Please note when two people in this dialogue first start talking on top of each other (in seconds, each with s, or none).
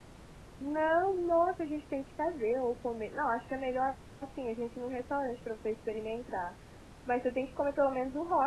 none